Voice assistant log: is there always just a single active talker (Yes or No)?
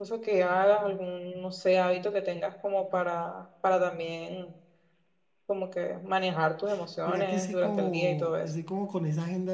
No